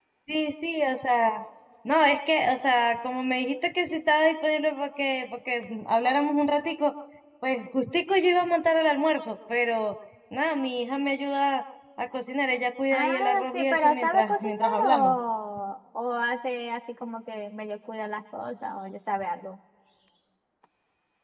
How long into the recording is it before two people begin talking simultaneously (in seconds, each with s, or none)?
12.9 s